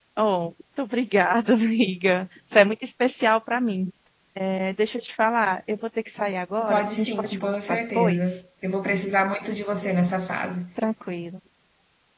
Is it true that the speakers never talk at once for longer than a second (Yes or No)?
No